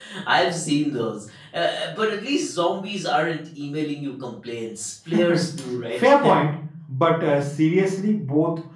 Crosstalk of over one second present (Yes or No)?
No